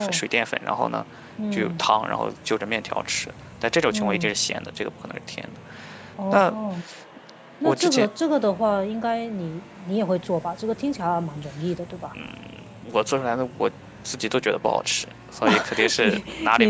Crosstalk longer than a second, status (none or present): present